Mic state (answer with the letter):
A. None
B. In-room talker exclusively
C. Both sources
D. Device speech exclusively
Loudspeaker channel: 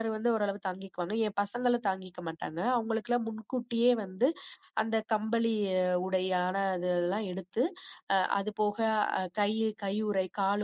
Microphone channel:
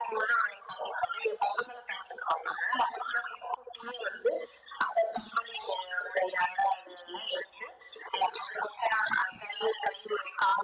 D